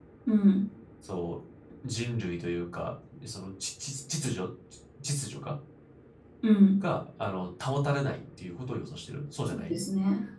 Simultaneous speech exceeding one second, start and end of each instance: none

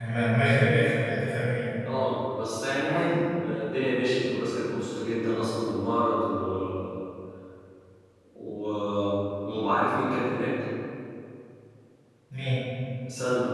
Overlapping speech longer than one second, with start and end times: none

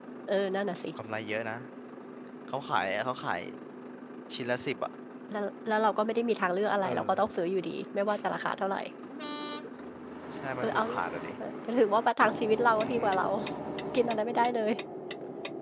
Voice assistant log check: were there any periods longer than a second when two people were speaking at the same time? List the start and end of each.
none

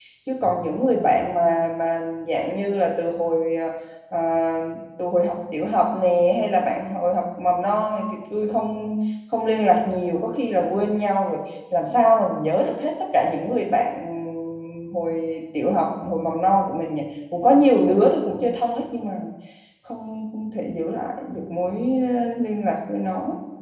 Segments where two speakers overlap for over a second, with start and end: none

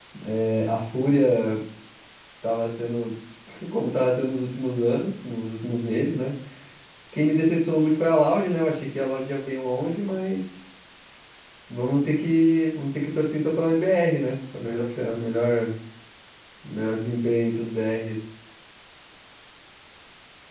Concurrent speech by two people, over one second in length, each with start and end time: none

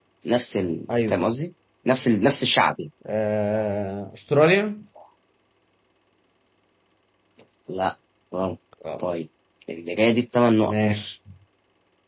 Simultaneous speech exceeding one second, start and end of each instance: none

